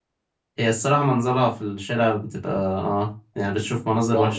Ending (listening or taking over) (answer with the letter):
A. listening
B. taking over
B